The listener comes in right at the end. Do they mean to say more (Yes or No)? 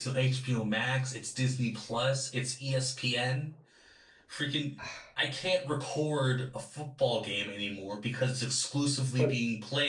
No